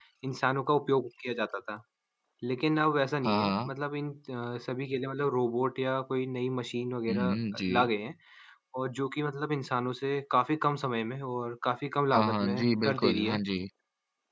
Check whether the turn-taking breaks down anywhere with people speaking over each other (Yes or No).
Yes